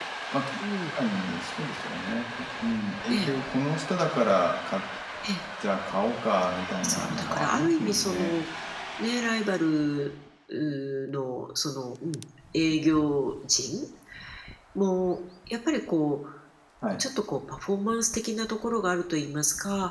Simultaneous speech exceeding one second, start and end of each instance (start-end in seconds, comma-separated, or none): 6.8-8.3